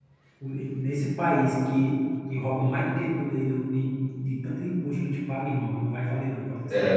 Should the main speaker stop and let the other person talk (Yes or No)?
Yes